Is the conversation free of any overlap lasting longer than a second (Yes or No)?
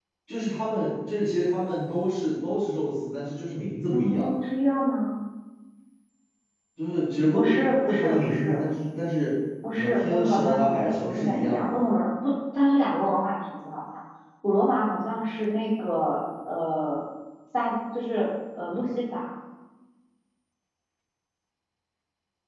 No